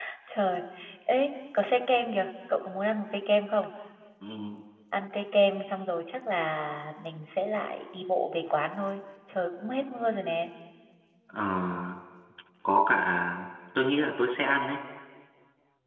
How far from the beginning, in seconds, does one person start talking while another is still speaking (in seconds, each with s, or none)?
none